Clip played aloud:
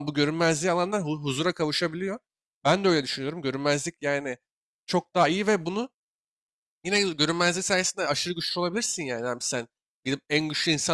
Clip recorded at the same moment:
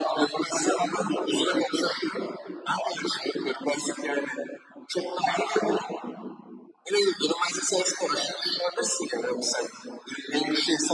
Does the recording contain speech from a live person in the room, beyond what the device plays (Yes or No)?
No